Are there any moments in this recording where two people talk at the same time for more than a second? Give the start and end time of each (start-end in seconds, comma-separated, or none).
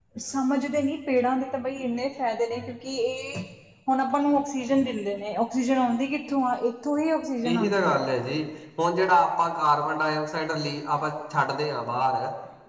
none